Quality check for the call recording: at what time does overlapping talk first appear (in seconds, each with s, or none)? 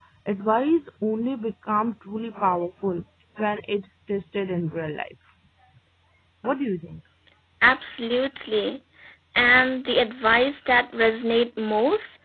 none